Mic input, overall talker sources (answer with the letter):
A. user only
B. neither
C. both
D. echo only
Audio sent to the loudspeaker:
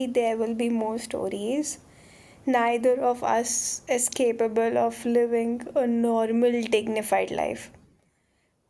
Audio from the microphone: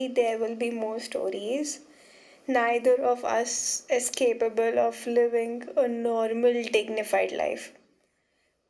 D